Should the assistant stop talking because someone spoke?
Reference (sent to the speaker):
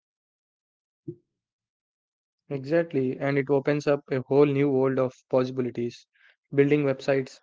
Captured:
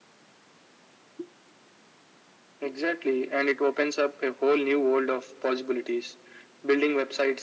No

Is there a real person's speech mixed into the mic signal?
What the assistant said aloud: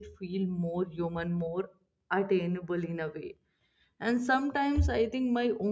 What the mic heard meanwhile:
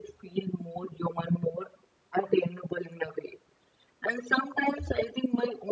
No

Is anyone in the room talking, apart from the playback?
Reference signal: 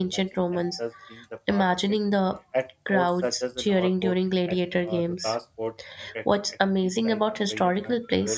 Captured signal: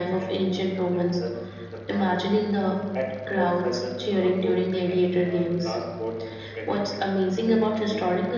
No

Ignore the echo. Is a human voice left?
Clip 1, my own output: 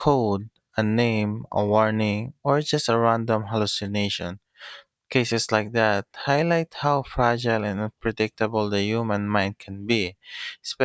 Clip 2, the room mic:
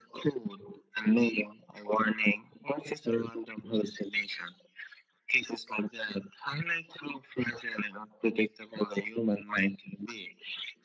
No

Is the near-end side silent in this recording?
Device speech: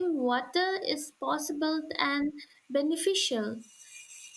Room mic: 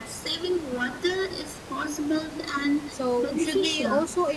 No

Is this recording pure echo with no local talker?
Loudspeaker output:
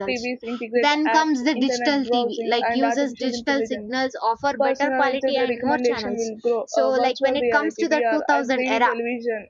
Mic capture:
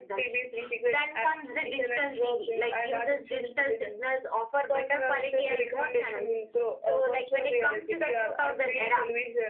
Yes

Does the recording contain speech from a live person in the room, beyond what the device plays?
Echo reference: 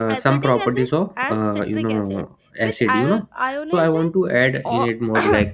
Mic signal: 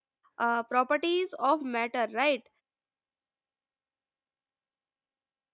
Yes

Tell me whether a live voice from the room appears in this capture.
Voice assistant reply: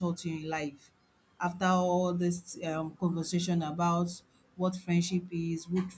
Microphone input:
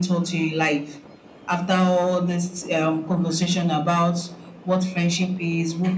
No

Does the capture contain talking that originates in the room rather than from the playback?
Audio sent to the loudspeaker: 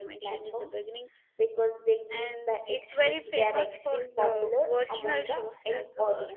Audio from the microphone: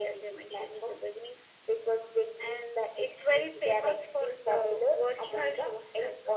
No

